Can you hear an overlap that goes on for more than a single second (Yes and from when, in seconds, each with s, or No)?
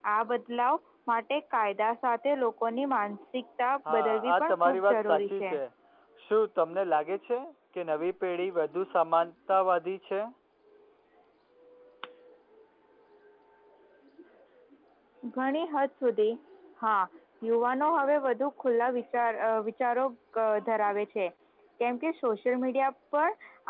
Yes, from 3.9 s